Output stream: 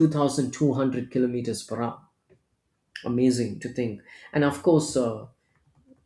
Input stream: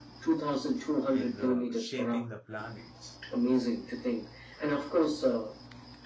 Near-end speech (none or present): present